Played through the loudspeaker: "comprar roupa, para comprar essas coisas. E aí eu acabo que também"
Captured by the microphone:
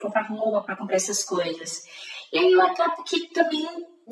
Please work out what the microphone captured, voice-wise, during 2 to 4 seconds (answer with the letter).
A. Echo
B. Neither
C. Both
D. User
A